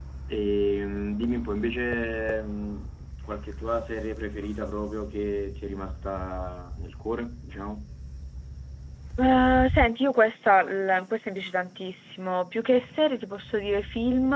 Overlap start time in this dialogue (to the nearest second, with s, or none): none